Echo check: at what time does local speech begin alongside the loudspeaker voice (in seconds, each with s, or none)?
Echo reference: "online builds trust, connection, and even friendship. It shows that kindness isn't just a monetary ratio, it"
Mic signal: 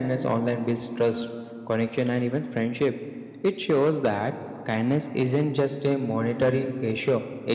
none